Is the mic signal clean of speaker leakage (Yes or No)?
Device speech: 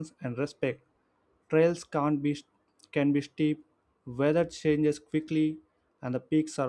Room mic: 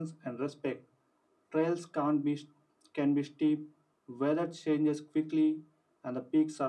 No